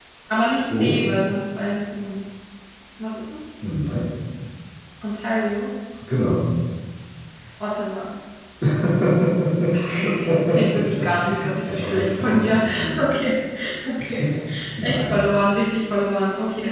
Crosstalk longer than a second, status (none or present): present